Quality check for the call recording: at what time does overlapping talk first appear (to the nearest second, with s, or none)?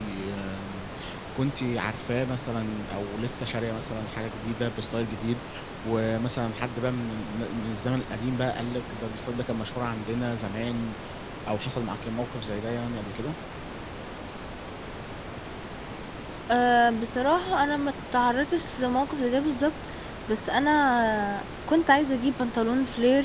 none